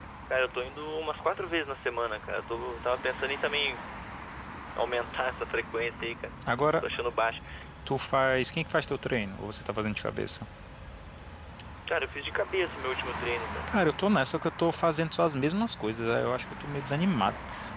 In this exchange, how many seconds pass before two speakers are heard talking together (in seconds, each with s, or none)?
none